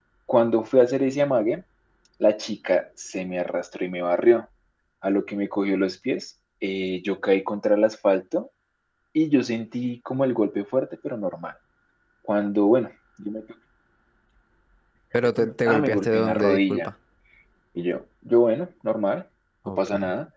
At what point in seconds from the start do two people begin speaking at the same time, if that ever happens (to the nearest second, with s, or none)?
16 s